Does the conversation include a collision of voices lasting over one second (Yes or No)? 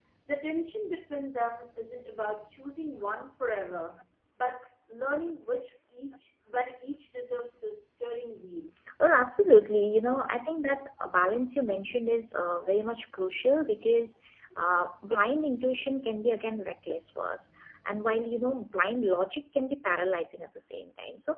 No